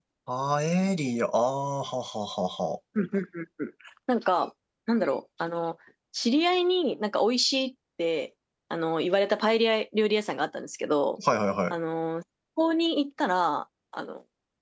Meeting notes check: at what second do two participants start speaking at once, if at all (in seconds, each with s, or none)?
none